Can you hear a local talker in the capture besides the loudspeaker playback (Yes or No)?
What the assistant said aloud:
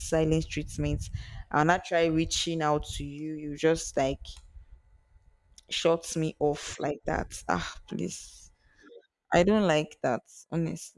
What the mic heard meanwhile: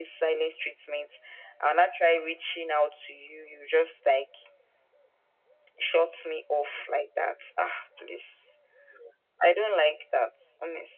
No